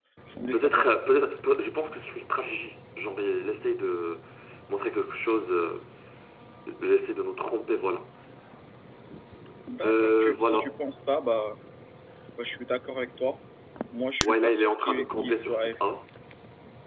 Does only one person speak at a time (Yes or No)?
No